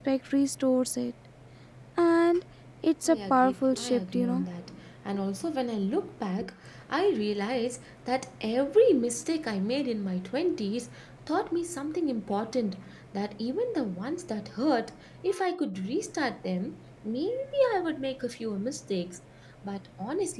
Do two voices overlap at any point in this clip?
Yes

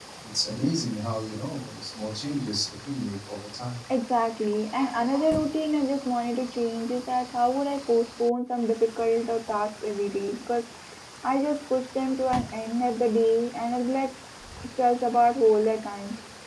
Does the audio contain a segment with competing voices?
No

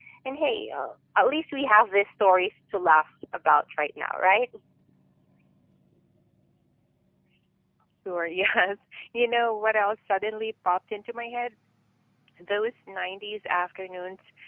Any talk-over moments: No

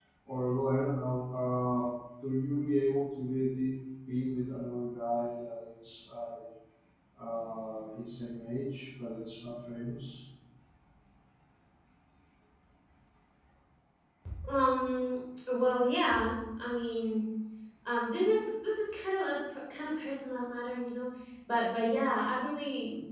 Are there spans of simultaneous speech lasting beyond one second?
No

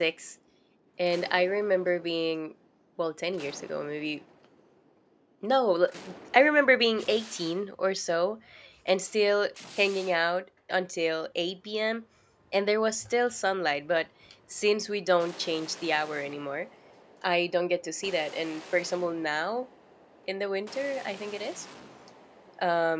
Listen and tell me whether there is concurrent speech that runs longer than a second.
No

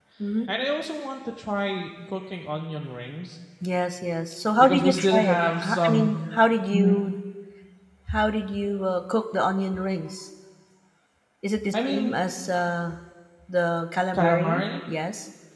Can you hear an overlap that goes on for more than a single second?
Yes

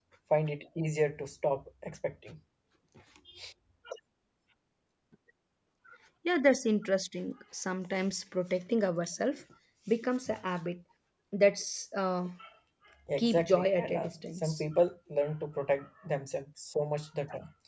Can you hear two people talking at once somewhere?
Yes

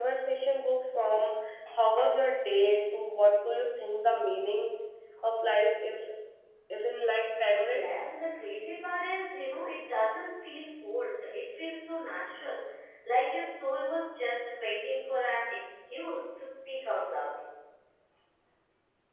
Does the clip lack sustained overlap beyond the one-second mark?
Yes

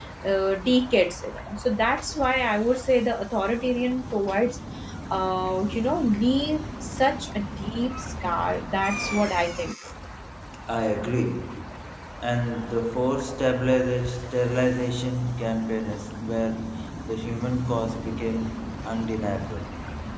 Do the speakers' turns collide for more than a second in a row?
No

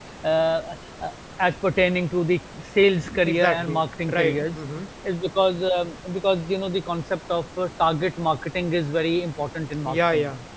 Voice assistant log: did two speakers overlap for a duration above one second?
Yes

